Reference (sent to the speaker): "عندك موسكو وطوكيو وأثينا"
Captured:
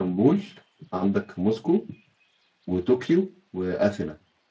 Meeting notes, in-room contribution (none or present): none